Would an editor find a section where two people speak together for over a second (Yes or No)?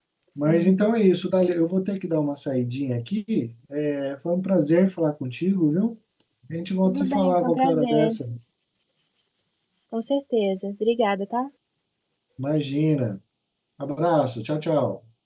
Yes